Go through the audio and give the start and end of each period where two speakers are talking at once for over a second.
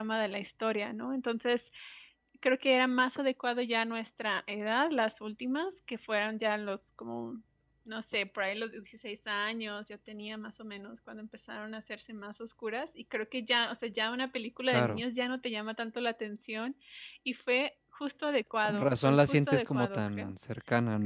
18.6-20.3

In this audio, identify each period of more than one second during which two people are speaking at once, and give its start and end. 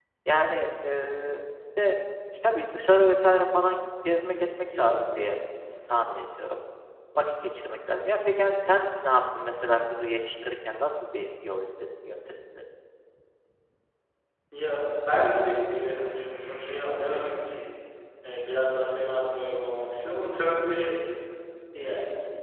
none

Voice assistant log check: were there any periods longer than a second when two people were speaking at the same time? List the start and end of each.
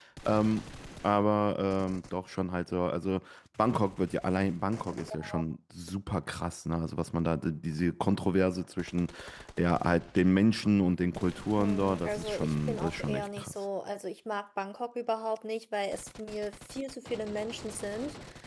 11.6-13.5

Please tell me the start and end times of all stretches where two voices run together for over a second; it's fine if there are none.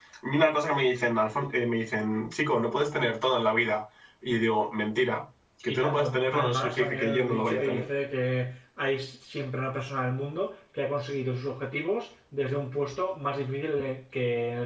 5.7-7.9

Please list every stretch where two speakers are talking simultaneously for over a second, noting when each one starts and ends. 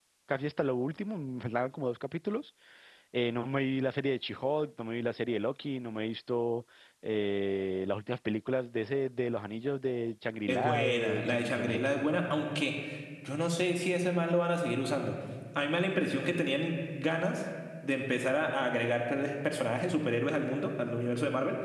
10.5-11.8

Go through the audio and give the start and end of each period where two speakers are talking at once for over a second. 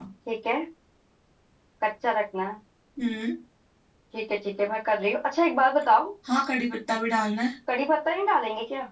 none

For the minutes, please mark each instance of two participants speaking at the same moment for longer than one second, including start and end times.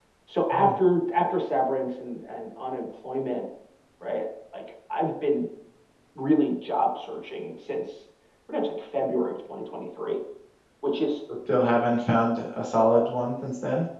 none

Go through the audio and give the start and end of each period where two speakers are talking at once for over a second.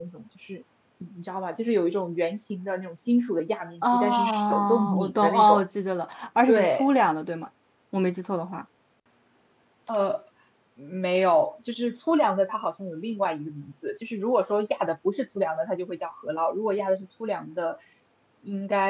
3.8-5.6

